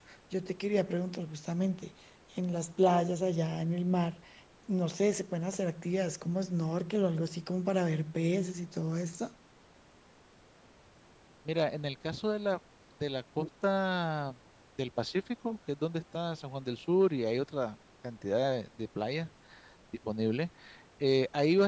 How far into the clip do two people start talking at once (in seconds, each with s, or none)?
none